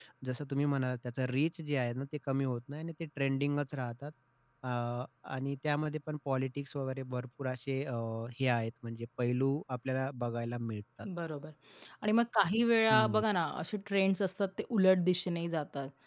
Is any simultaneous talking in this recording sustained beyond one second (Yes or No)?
No